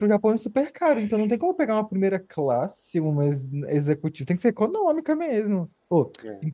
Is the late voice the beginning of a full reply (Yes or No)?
No